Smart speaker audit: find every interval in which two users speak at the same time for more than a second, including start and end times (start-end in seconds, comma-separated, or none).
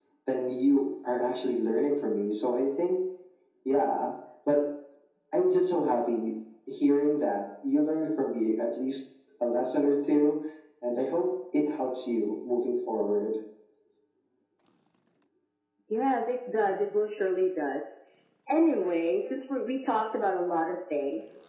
none